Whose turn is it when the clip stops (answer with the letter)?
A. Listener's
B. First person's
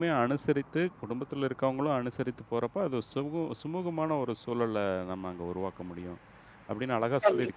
B